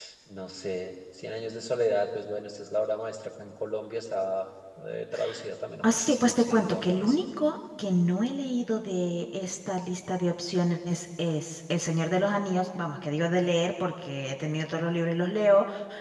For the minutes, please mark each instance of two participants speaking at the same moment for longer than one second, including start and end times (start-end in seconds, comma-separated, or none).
5.8-7.2